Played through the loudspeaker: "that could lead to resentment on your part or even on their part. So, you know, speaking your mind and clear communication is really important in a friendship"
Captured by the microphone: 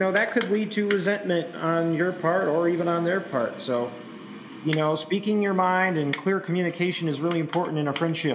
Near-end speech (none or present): none